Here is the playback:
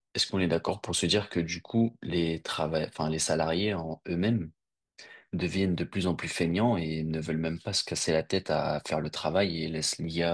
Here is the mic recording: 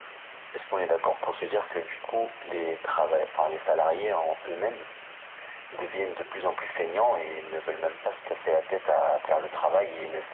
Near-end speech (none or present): none